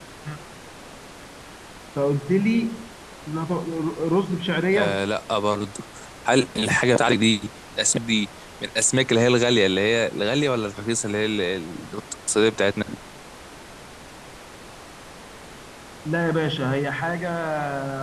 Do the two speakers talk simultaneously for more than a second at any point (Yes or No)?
No